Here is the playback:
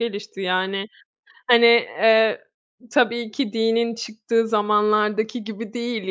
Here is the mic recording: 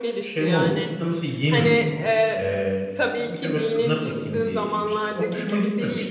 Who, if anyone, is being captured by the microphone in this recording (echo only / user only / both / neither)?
both